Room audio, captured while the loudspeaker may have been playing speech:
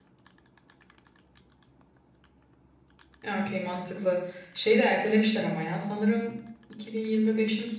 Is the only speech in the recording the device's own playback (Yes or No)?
No